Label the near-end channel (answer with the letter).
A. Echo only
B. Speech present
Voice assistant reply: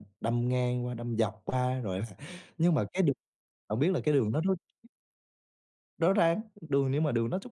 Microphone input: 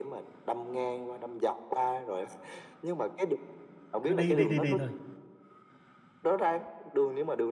B